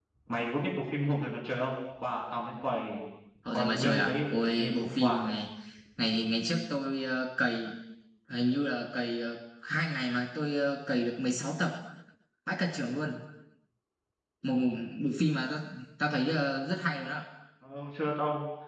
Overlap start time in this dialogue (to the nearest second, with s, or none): 4 s